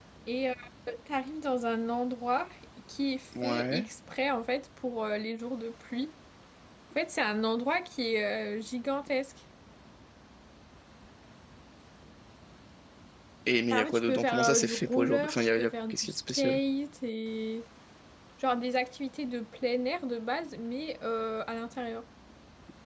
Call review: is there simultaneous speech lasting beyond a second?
Yes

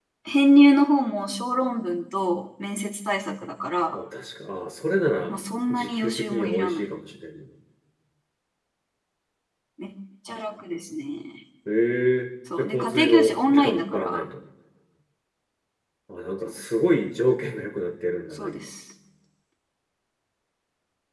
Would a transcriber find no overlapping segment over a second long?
No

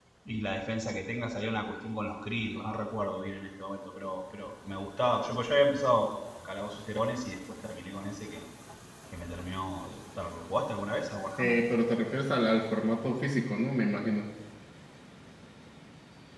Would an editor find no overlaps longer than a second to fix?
Yes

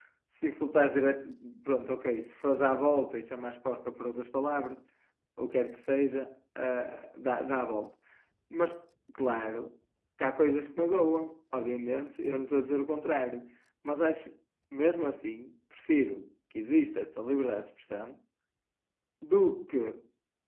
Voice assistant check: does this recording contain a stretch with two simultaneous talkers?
No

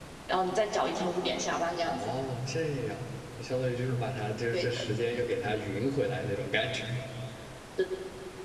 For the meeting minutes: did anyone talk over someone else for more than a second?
No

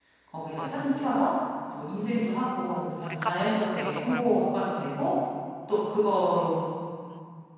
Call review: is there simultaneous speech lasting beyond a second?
Yes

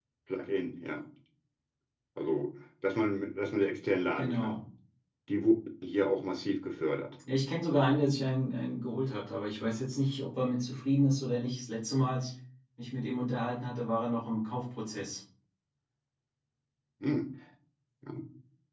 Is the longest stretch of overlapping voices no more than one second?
Yes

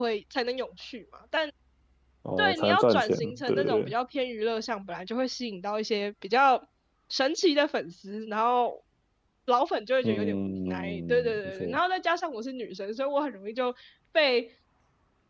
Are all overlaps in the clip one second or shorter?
No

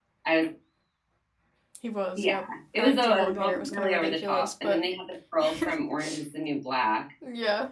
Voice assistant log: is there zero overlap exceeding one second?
No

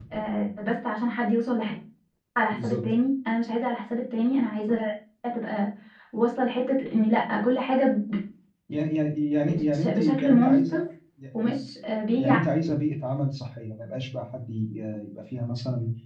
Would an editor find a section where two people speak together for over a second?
Yes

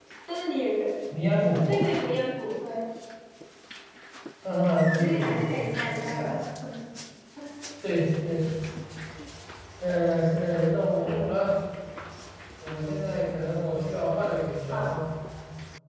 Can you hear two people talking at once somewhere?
Yes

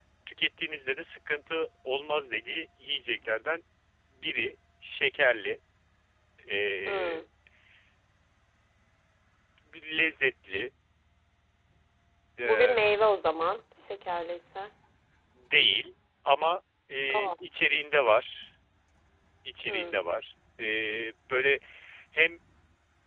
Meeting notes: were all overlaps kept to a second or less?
Yes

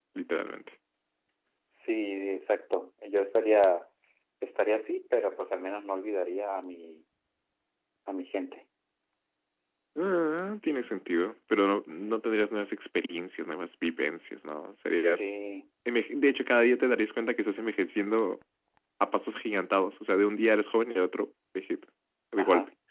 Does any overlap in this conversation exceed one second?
No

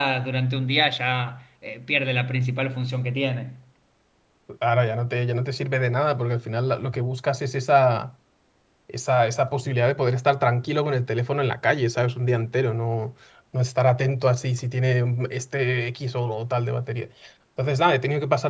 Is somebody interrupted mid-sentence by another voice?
No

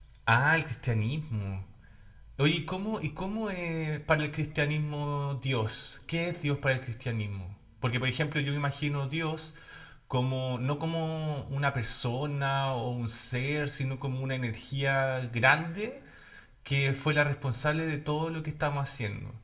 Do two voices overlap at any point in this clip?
No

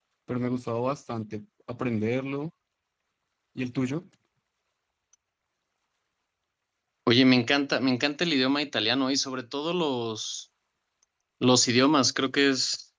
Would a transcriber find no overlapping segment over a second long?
Yes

